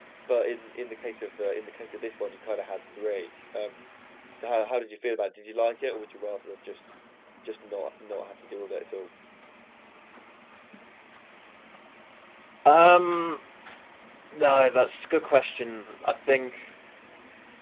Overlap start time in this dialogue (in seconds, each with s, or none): none